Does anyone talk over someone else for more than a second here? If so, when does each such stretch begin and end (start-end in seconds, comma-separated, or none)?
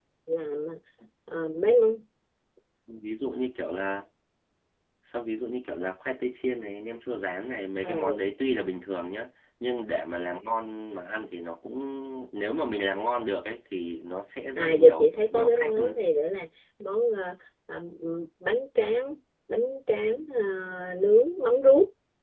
14.6-16.0